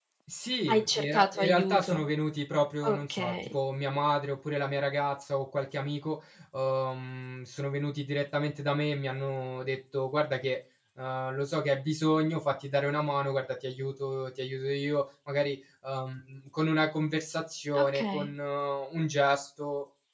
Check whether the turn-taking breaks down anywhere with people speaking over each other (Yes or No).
Yes